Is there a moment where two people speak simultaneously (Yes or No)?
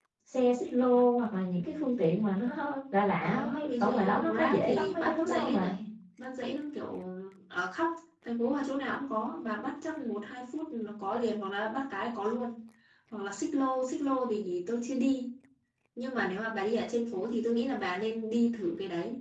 Yes